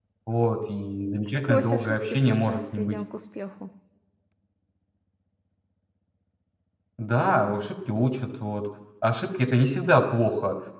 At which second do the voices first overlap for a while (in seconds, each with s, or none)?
1.2 s